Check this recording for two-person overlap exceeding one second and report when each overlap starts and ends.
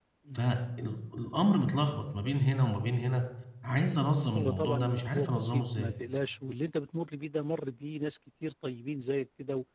4.4-5.9

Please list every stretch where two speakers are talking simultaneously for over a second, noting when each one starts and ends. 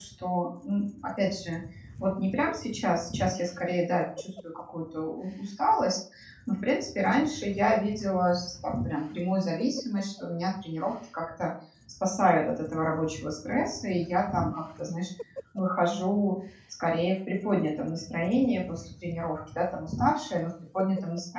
none

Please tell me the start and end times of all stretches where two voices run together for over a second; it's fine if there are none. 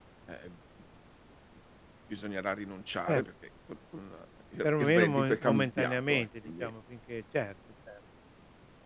4.6-6.7

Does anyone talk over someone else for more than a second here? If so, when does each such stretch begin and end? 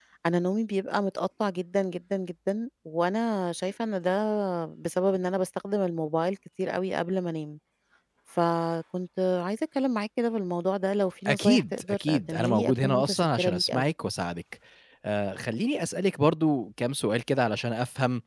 11.3-13.9

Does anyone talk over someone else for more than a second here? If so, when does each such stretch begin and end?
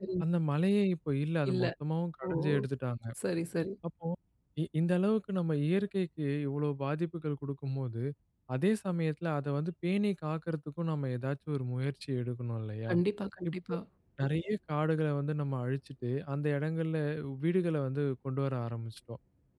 none

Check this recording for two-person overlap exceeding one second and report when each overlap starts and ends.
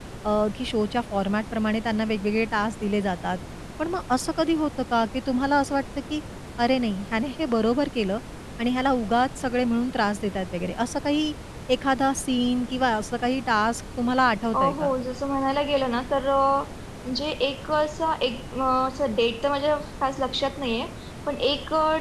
none

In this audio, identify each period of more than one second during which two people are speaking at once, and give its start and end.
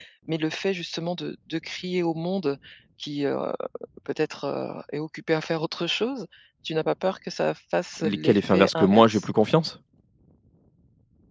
8.0-9.2

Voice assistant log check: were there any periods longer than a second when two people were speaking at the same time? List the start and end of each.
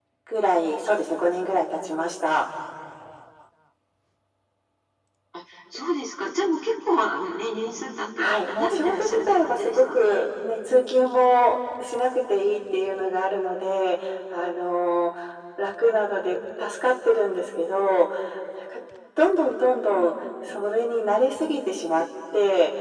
8.2-10.3

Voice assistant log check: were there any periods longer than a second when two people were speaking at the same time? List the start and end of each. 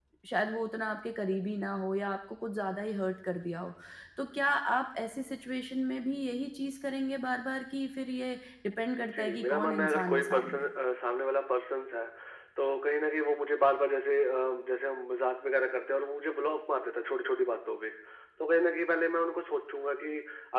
9.0-10.7

